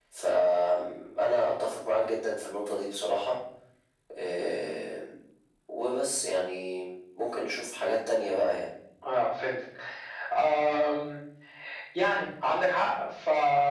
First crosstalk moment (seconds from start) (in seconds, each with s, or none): none